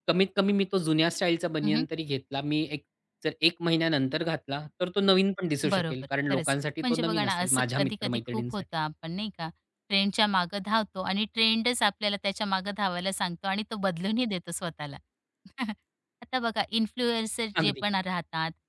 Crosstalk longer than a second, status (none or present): present